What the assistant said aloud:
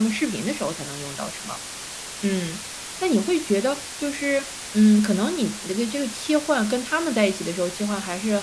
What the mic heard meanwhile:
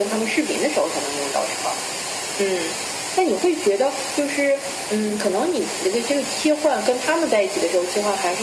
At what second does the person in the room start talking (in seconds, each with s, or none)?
none